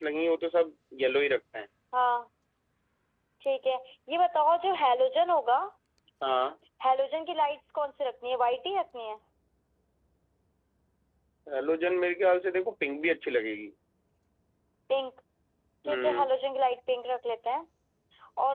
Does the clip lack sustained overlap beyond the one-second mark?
Yes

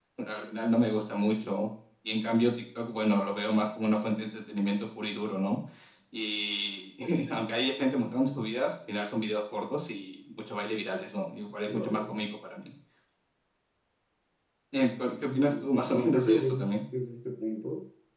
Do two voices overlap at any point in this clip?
Yes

